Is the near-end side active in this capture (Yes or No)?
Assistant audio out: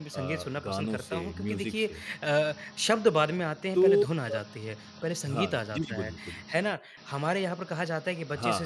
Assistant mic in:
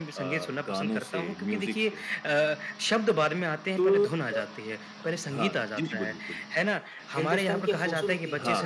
Yes